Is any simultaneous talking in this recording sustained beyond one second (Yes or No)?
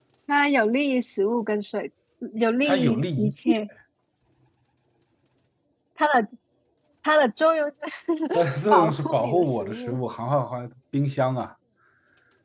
Yes